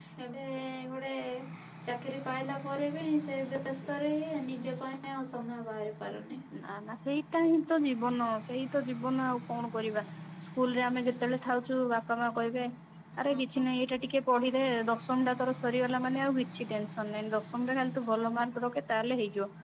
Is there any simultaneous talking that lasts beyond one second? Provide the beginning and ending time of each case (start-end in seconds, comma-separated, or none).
none